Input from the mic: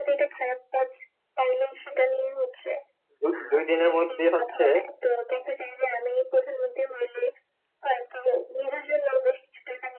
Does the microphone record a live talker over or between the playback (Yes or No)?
Yes